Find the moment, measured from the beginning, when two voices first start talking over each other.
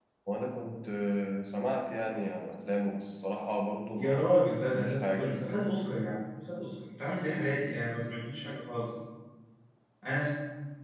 4 s

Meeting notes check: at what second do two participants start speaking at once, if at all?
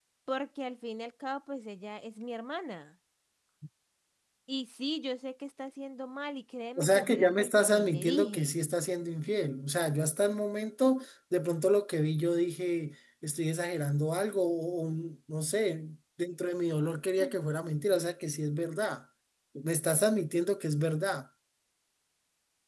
7 s

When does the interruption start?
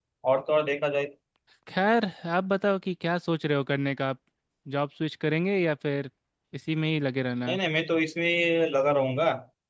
none

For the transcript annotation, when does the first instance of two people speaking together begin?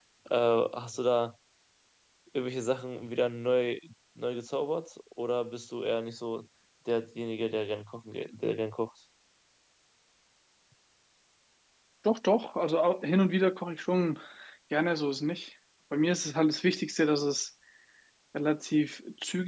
none

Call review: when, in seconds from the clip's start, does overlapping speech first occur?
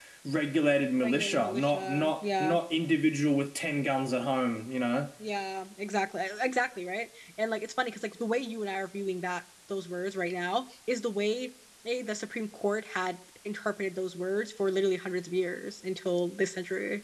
1 s

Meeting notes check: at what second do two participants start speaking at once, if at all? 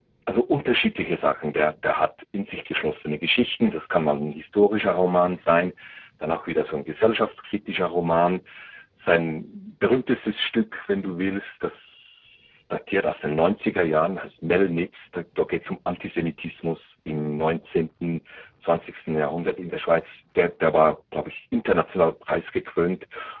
none

